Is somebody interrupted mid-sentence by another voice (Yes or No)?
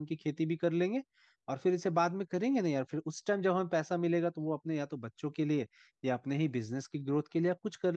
No